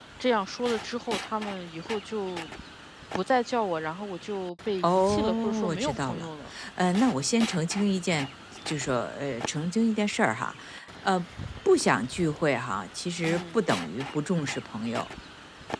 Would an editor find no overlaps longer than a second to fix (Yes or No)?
No